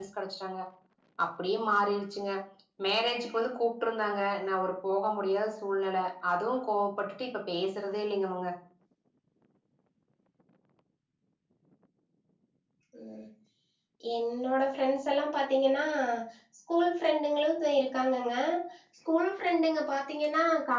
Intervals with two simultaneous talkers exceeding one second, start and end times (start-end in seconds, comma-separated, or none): none